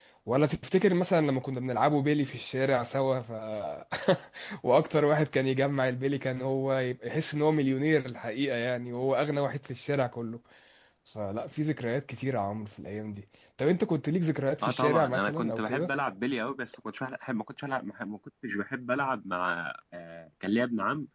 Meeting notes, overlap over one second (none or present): present